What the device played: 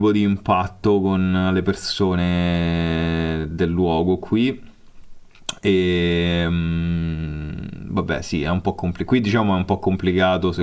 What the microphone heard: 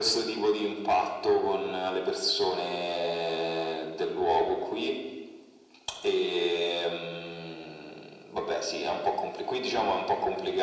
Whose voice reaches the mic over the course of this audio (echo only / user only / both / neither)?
echo only